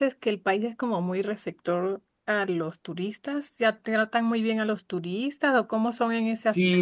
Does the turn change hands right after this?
Yes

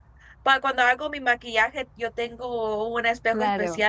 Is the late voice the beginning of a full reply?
No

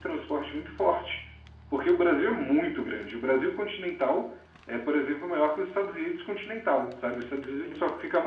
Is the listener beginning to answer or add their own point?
No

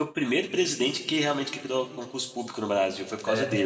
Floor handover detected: Yes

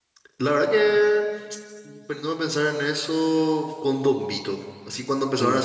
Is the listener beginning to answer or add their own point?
No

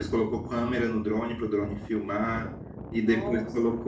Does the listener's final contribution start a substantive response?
No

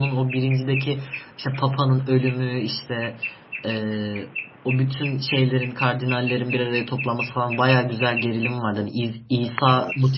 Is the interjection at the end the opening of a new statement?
No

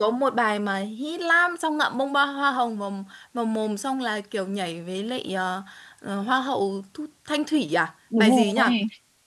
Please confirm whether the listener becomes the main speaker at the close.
Yes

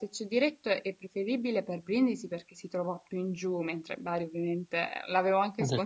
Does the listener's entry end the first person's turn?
Yes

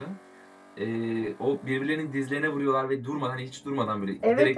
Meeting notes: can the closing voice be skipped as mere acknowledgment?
No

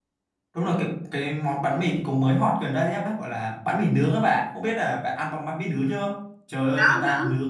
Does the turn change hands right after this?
No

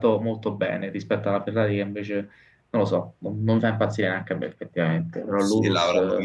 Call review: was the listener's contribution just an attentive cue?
No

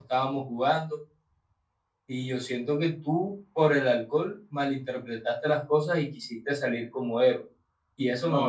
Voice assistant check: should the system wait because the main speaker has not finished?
No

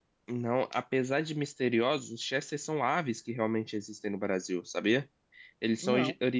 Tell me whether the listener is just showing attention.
Yes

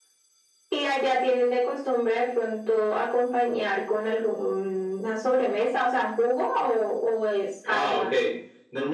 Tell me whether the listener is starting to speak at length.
Yes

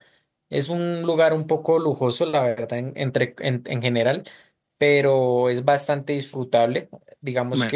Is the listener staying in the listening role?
Yes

